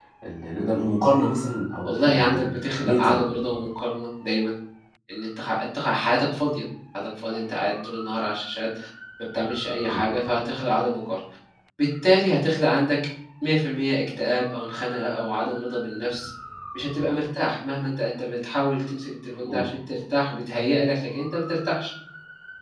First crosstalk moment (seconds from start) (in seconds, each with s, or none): 1.8 s